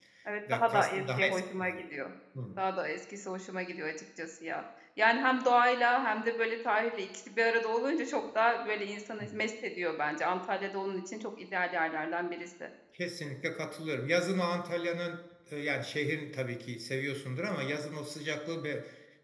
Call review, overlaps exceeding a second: present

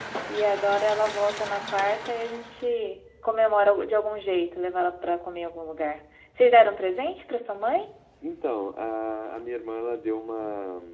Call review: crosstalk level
none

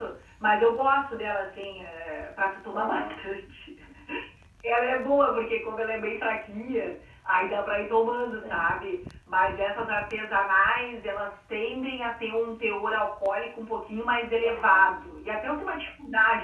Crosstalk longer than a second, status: none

